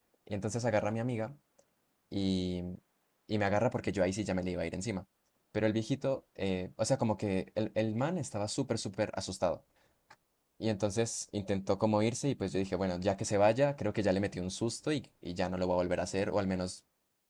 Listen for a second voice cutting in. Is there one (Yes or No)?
No